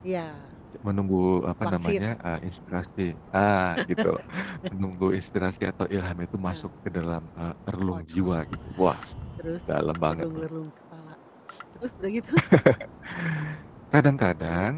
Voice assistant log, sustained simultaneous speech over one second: none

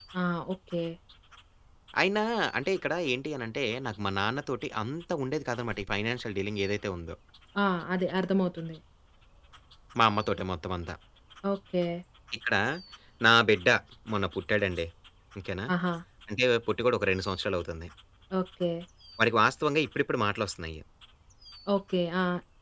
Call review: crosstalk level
none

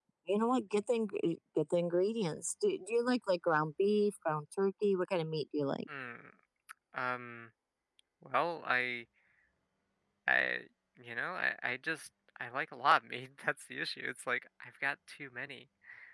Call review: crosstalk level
none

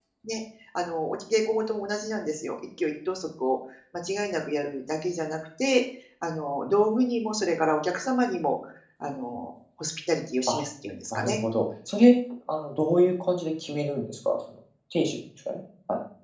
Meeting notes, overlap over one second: none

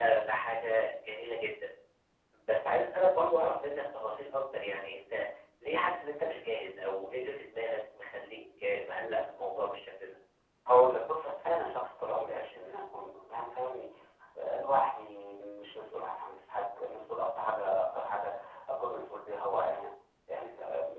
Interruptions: none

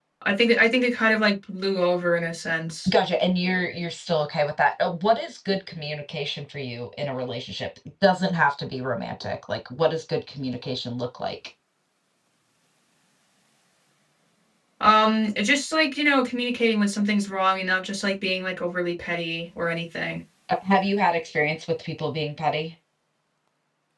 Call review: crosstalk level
none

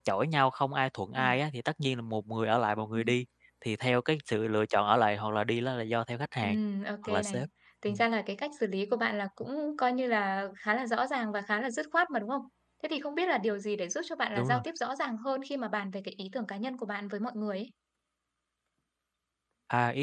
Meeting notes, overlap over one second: none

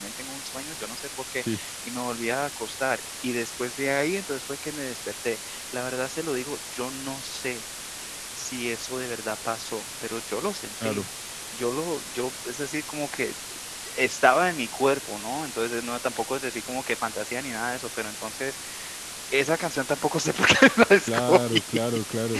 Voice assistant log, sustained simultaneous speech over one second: none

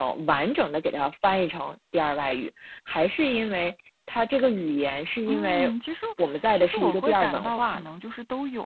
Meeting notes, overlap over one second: present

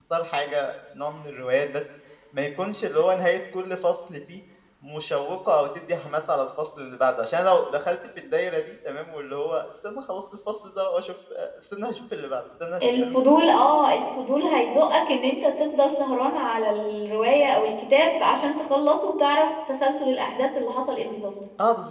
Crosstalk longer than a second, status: none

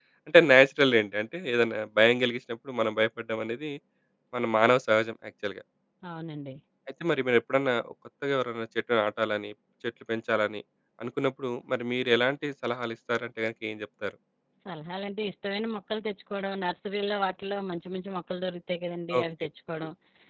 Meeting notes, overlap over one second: none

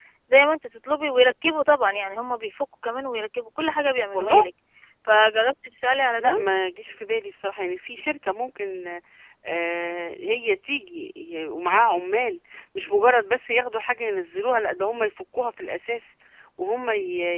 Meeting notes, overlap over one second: none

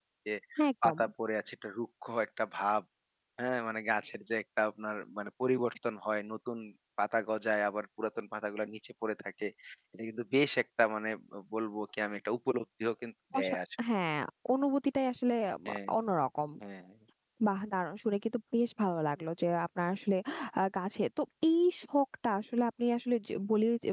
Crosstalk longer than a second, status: none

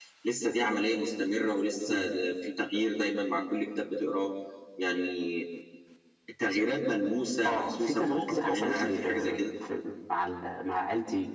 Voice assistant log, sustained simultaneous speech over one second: present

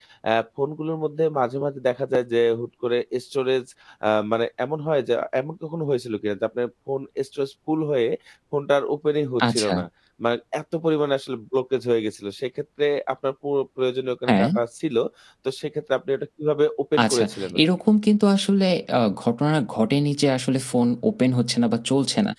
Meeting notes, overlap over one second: none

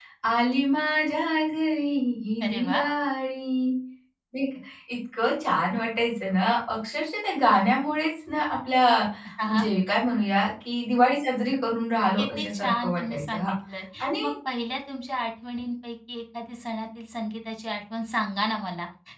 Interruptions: present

